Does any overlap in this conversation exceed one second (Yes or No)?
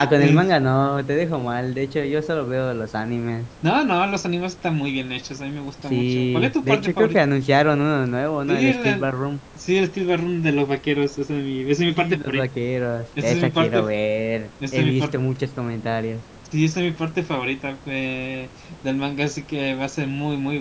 Yes